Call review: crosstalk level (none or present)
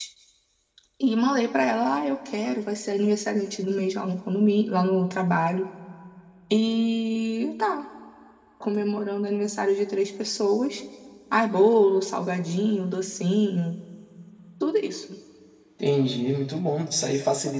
none